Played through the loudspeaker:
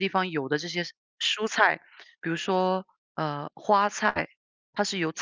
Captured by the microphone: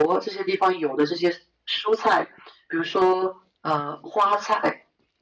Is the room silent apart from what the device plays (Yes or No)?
Yes